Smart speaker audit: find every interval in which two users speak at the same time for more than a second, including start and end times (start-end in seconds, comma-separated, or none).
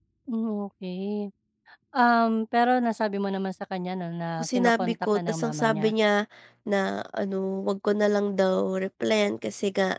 4.4-5.9